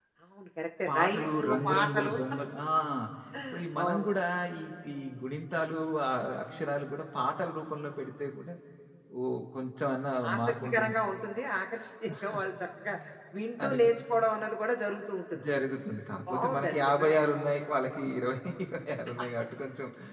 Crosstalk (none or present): present